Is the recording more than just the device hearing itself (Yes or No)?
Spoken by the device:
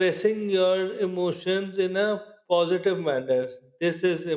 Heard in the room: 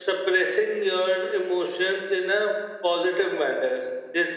No